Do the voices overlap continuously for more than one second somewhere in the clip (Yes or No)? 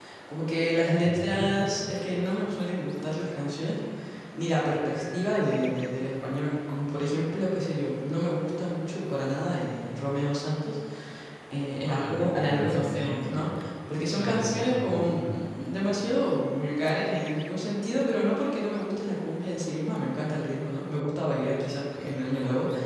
Yes